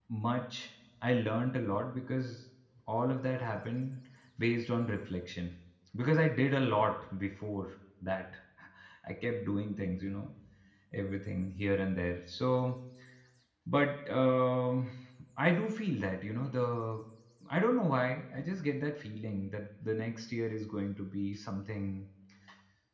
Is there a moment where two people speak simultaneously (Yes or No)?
No